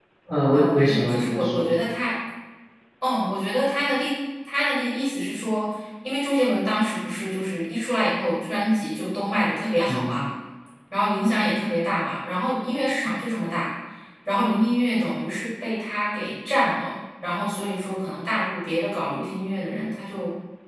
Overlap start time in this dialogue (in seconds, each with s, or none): 0.5 s